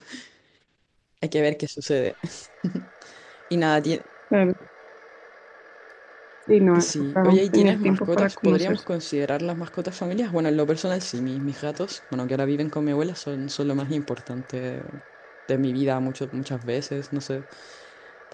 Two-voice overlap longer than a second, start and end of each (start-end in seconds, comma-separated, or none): 6.8-8.8